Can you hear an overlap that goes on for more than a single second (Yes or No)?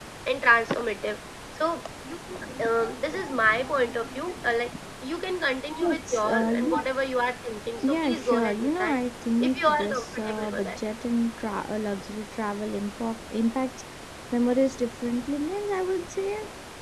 Yes